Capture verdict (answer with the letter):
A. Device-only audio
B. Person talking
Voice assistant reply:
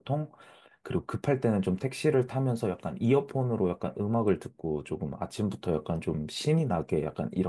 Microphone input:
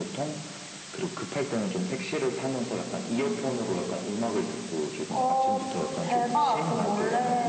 B